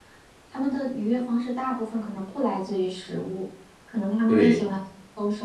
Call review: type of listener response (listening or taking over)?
listening